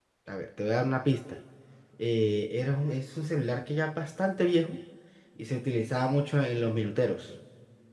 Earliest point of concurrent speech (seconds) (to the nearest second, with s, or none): none